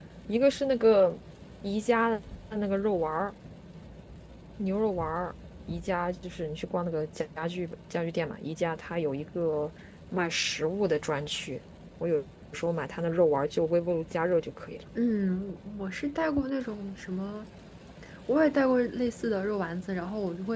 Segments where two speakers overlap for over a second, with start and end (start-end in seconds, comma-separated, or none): none